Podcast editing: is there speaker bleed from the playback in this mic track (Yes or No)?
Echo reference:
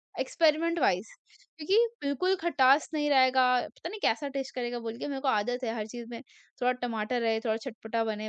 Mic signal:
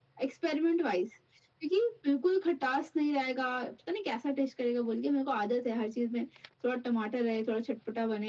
Yes